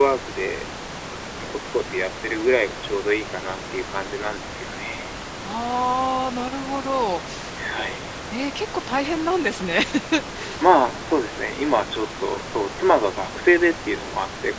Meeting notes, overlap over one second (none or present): none